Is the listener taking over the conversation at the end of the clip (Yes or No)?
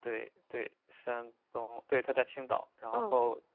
No